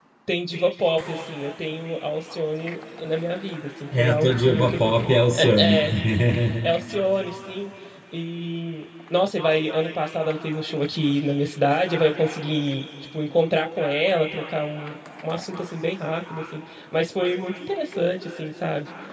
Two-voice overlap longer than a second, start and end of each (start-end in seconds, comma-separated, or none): 4.0-5.8